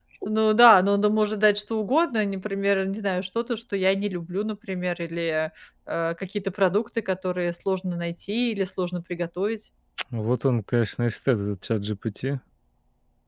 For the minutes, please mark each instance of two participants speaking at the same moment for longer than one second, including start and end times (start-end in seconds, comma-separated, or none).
none